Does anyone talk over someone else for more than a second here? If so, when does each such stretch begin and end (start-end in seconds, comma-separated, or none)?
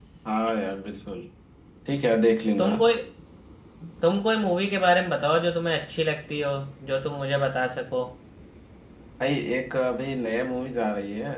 none